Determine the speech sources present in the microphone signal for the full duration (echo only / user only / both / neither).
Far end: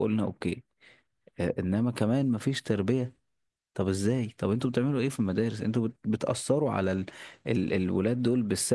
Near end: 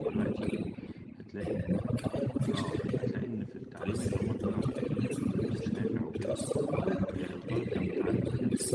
both